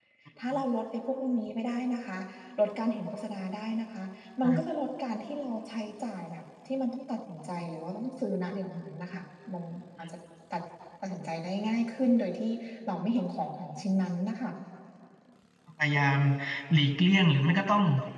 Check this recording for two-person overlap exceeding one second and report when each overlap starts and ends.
none

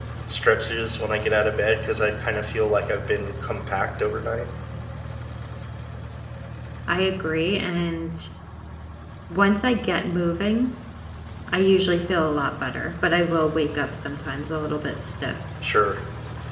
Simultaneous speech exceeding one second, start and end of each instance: none

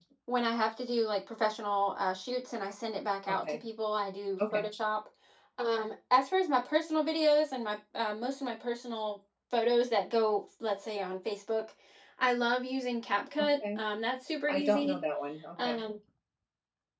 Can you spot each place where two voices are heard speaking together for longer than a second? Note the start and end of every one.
none

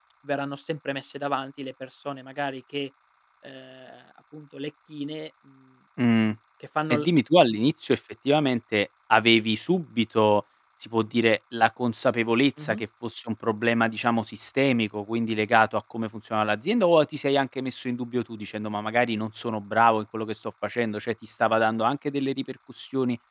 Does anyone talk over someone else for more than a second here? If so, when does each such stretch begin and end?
none

